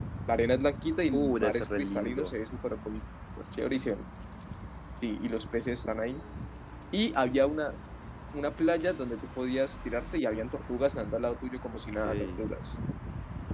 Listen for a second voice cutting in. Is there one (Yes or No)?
Yes